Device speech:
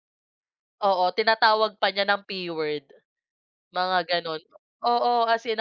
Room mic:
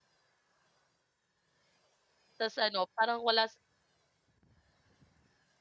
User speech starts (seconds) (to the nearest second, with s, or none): 2 s